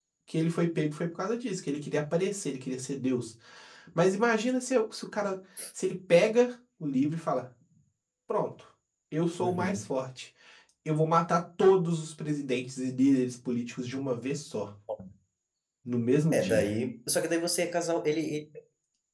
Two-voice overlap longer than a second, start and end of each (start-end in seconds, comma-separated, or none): none